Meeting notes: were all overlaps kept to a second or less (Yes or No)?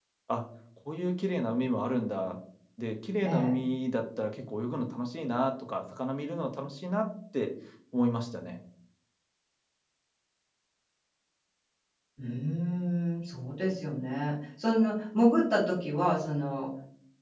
Yes